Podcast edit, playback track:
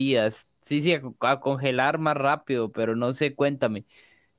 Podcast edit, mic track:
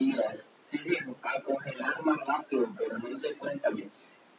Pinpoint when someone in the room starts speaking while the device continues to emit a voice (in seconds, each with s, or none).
none